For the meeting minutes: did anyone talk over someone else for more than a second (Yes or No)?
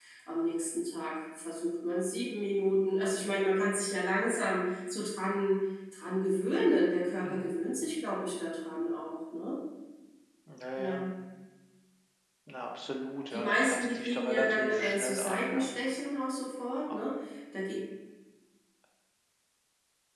Yes